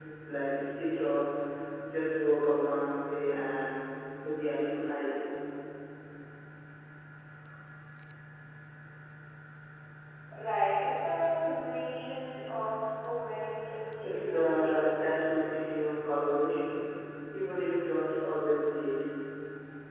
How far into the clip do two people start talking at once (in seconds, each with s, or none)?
14.0 s